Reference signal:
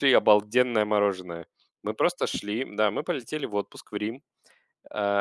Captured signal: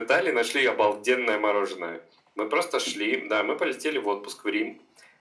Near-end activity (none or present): none